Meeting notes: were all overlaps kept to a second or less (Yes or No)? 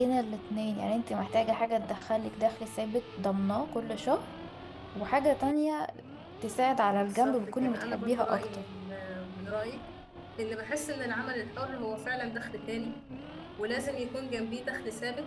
No